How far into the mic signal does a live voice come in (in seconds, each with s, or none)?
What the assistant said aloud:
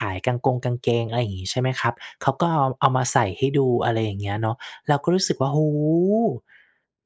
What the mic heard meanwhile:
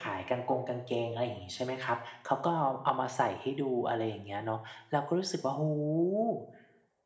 none